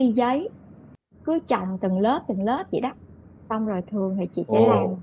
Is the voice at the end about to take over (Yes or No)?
No